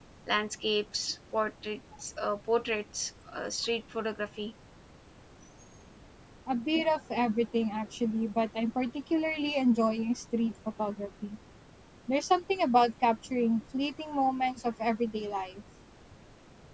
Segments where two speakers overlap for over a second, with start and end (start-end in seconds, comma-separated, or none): none